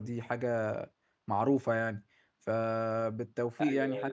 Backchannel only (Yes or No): Yes